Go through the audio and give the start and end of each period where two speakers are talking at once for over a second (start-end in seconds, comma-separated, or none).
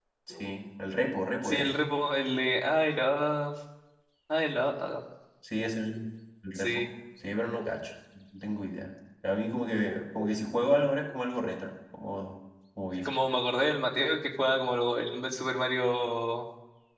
none